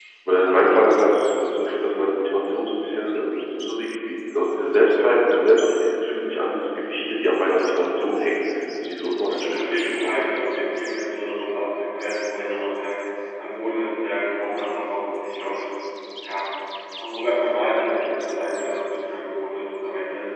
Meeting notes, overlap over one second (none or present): present